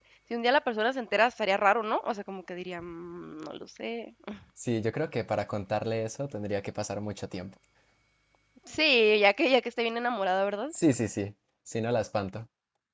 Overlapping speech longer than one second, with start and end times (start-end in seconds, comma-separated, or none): none